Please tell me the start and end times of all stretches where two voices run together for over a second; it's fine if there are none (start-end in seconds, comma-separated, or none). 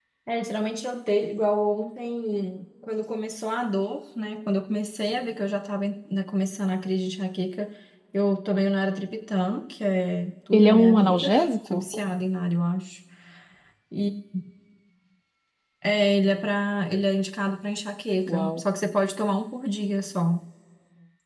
10.5-11.8